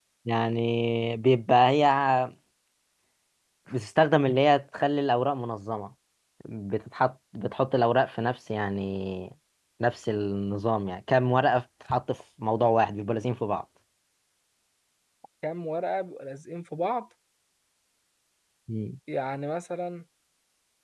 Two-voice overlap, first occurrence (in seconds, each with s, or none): none